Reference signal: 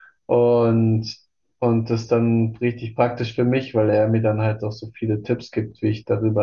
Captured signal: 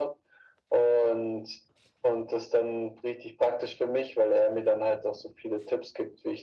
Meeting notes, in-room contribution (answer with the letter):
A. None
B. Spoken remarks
A